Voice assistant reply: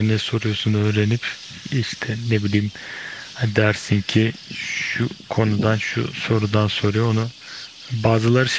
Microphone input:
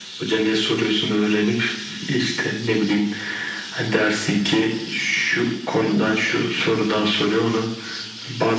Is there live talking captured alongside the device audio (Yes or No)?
No